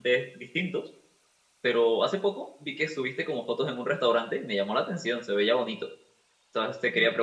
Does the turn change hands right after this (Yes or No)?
No